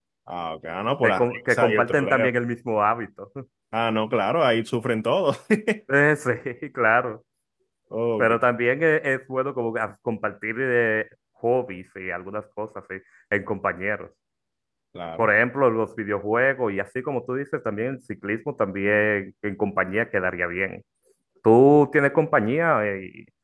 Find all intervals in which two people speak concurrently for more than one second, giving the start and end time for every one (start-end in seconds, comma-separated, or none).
1.0-2.3